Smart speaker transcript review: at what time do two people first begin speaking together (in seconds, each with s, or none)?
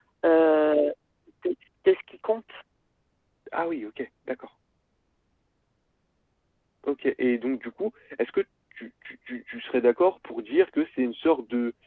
none